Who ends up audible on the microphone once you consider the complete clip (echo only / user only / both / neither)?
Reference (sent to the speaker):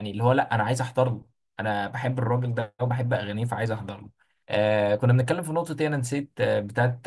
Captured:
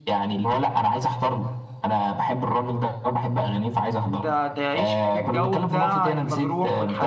both